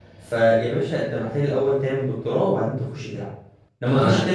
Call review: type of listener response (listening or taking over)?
listening